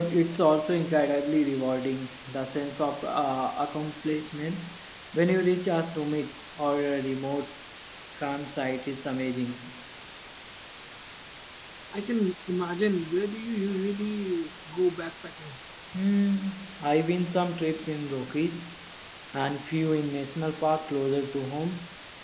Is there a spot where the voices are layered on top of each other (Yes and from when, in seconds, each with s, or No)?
No